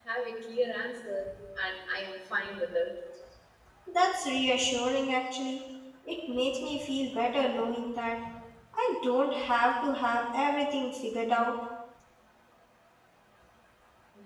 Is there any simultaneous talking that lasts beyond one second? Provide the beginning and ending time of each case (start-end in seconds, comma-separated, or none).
none